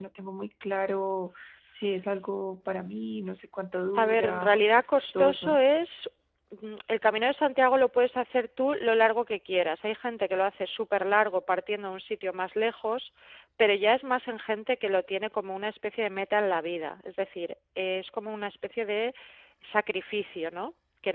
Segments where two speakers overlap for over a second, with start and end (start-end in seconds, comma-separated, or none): 4.0-5.6